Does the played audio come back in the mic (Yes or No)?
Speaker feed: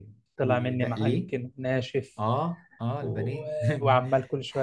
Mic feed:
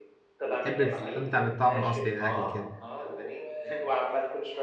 Yes